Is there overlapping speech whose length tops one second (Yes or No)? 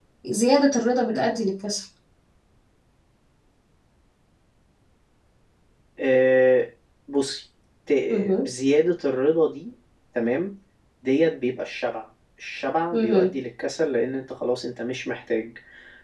No